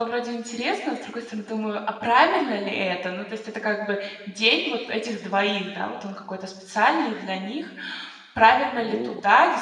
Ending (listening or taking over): listening